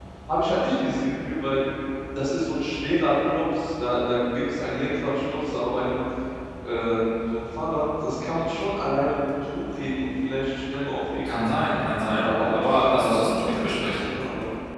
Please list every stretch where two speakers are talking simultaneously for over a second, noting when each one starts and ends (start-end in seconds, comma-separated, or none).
12.2-14.0